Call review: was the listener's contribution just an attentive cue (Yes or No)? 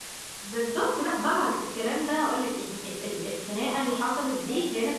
Yes